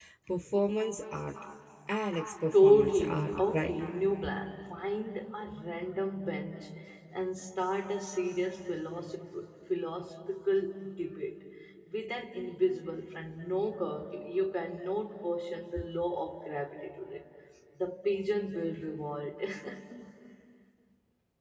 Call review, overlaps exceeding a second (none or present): present